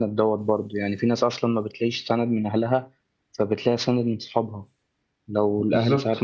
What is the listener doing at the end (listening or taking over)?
listening